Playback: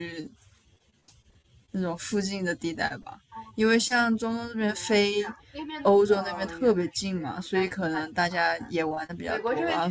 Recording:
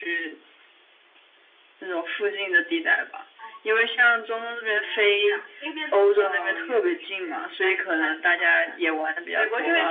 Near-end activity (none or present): none